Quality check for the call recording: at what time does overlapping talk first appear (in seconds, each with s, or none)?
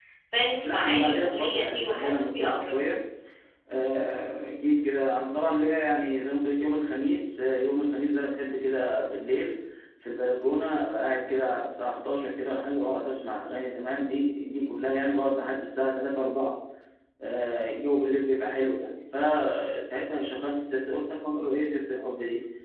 0.6 s